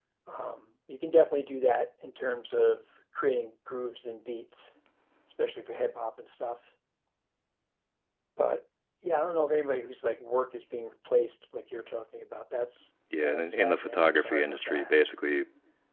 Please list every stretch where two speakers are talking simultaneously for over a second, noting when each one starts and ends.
13.2-15.0

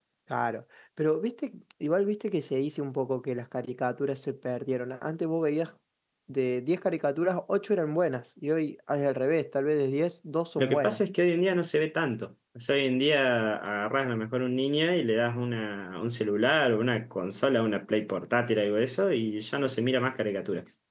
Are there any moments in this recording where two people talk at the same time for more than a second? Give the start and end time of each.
none

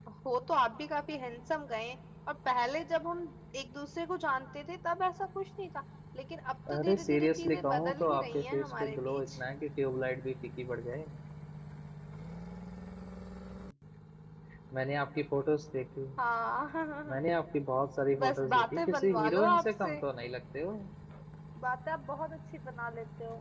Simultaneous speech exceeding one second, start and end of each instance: 6.7-9.4, 18.2-19.9

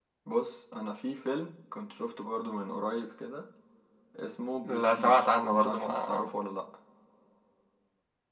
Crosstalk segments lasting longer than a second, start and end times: 4.7-6.3

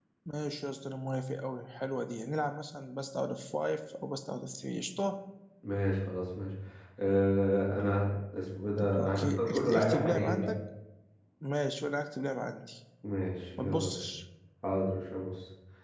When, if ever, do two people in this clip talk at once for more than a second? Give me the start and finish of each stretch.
8.8-10.5

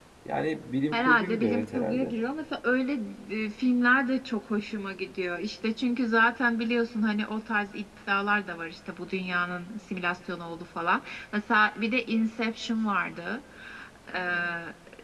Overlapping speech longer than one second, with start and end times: 0.9-2.2

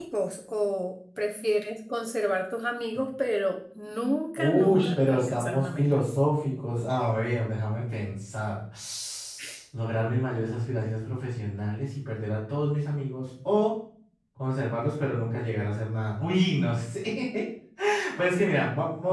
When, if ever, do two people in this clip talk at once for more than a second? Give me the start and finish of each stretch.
4.4-5.8

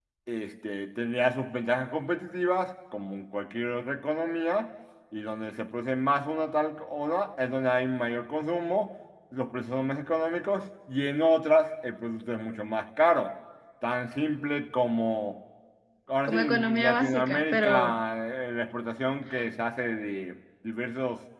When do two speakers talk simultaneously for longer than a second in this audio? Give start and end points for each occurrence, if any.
16.3-17.9

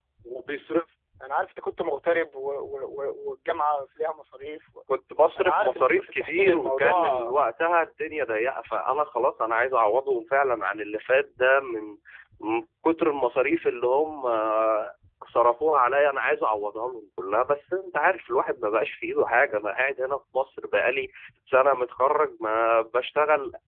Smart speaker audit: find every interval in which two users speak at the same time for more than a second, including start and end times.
5.4-7.3

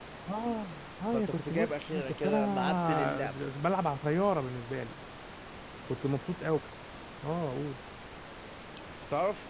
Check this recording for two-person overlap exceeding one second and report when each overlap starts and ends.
1.1-3.4

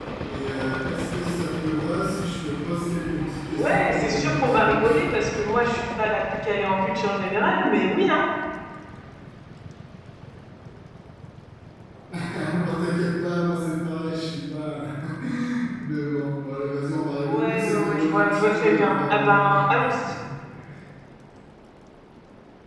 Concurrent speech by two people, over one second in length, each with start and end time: 3.5-5.1, 17.2-19.6

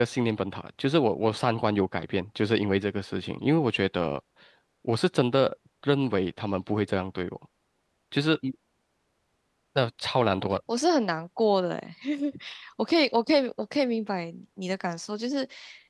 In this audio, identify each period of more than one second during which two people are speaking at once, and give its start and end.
none

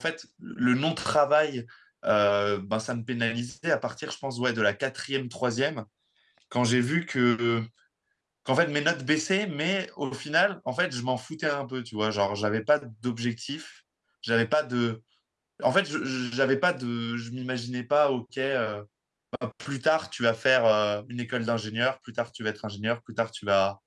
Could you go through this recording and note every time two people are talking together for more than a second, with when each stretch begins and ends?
none

